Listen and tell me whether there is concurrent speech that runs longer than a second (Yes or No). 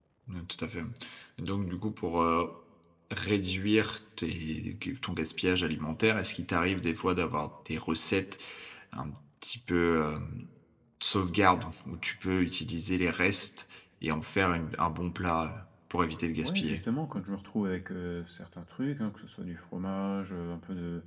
No